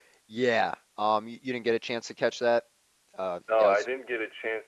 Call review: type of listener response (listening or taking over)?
taking over